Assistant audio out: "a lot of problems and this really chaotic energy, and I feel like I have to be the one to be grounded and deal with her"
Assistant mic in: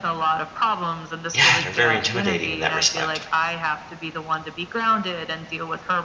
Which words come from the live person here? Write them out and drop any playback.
yeah, they're very intimidating in that respect.

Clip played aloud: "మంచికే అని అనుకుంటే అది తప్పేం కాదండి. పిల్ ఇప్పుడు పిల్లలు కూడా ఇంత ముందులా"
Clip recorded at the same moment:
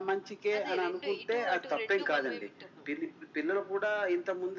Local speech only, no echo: అదే 2 ఇటు, అటు 2 మనమే వింటున్నాం.

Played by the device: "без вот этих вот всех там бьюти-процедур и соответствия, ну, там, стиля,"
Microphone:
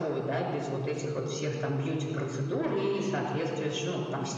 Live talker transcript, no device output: none

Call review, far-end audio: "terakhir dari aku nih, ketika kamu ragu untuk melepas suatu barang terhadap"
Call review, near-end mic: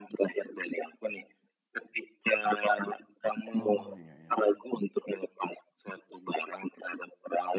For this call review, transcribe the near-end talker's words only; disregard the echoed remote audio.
Oh, iya iya.

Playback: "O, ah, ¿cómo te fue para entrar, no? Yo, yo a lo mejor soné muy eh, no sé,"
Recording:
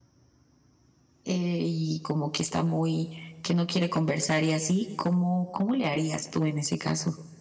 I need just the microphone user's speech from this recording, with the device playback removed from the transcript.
eh, y como que está muy que no quiere conversar y así, ¿cómo cómo le harías tú en ese caso?

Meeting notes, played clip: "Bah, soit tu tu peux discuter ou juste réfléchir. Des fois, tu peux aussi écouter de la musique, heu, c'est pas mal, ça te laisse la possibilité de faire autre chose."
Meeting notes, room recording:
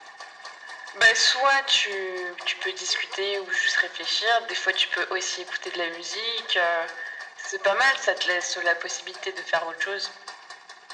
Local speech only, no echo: none

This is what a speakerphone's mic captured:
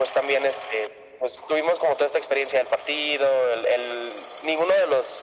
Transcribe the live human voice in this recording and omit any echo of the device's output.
none

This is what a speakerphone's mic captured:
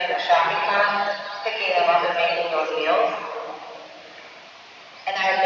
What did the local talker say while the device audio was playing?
none

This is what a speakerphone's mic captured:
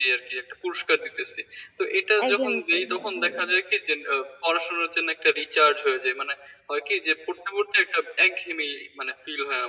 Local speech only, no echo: একঘেয়েমি ফিল হয়। হুম,

